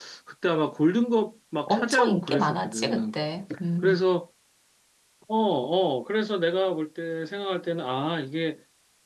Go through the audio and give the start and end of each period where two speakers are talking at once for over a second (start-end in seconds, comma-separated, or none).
1.7-3.2